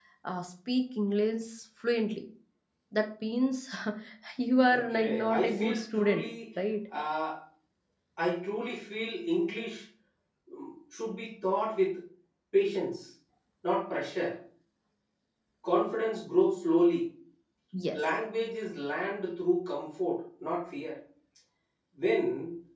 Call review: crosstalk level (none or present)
present